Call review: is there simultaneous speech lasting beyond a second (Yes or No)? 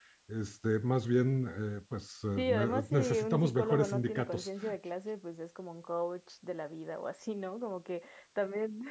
Yes